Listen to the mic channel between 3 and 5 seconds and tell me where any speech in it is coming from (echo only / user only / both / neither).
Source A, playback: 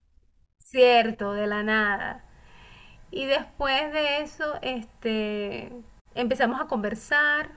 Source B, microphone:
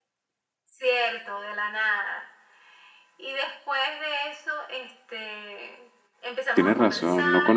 echo only